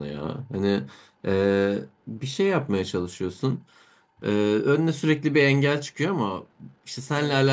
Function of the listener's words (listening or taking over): listening